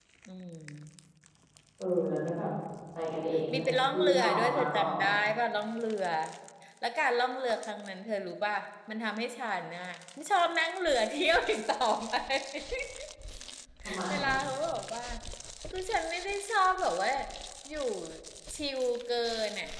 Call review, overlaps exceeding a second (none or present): present